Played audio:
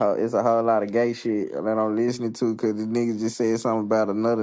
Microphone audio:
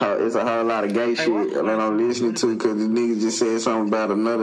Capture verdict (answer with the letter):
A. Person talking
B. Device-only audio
A